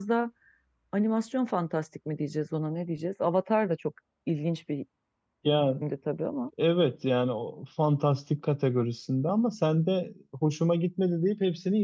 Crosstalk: none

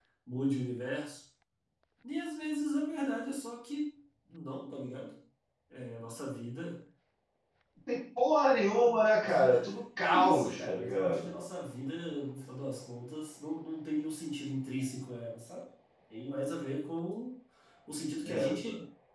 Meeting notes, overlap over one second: present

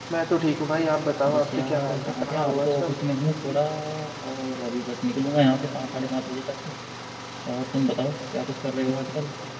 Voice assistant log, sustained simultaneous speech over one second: present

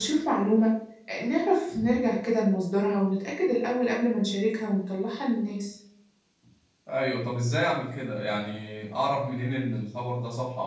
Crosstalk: none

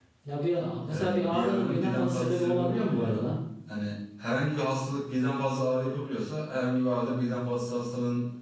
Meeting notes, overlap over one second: present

